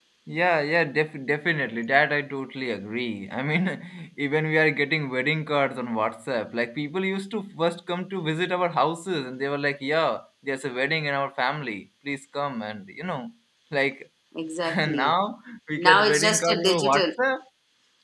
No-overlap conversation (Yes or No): No